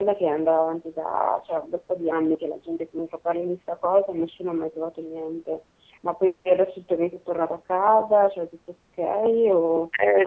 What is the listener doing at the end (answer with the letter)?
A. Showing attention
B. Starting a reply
B